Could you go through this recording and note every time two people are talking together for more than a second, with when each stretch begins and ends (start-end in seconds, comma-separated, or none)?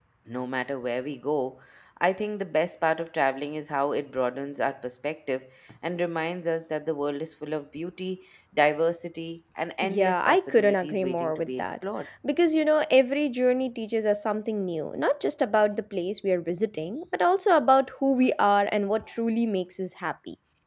9.8-11.8